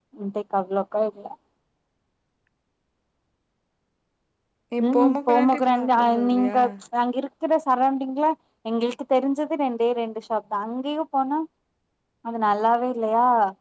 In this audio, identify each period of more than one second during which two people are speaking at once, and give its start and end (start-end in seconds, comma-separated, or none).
4.8-6.6